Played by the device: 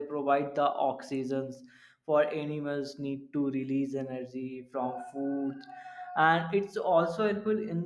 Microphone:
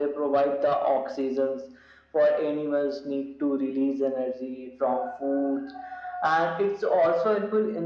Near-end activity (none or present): none